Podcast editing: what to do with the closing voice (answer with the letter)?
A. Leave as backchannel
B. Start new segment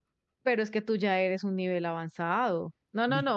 A